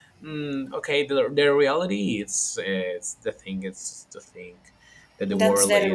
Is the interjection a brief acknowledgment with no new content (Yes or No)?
Yes